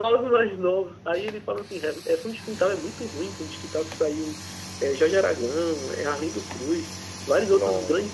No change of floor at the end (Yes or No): Yes